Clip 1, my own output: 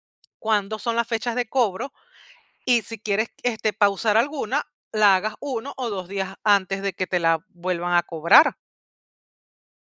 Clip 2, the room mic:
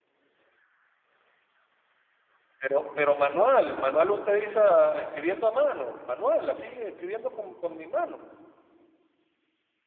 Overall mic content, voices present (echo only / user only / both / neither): user only